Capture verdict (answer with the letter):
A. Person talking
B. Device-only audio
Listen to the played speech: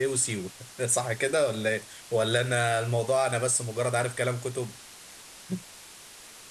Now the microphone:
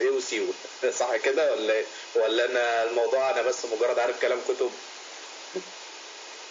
B